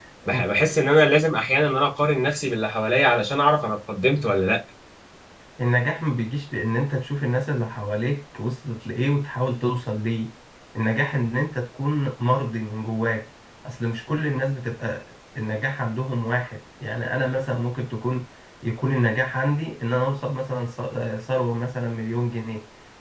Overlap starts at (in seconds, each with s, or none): none